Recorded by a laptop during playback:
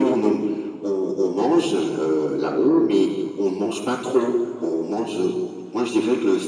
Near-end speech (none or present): none